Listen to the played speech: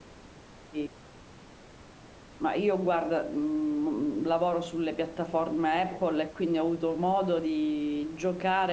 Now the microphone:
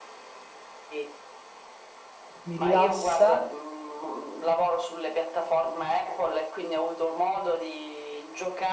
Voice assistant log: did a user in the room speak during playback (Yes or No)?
Yes